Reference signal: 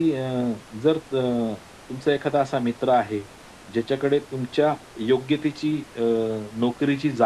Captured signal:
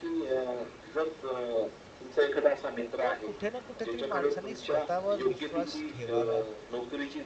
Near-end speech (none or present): present